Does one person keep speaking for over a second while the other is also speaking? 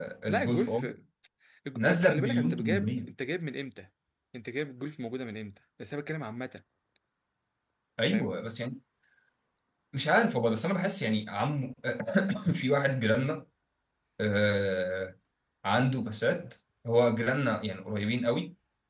Yes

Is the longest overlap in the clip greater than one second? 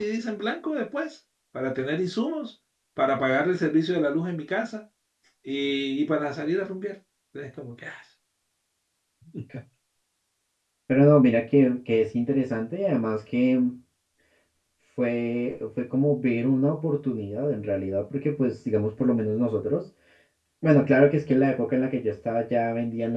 No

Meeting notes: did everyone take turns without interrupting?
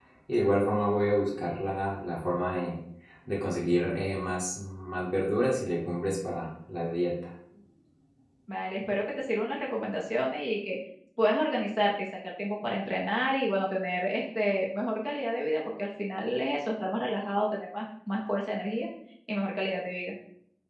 Yes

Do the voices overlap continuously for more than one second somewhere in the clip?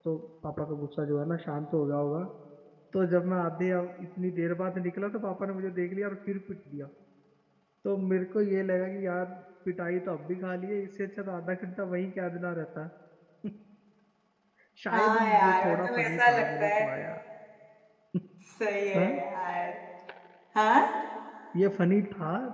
Yes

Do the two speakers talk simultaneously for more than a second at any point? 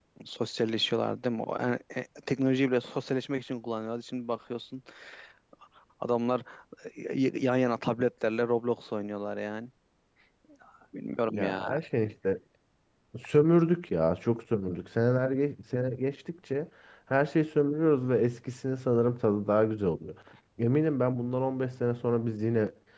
No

